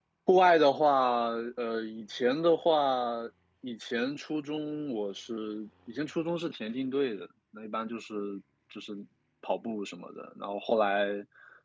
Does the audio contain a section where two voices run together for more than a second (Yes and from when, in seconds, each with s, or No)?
No